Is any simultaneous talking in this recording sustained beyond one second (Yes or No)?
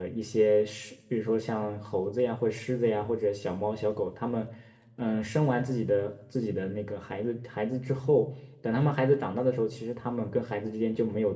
No